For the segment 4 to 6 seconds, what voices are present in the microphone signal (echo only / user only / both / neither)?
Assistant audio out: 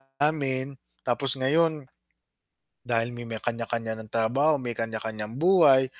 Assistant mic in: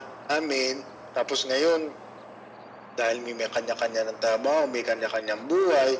echo only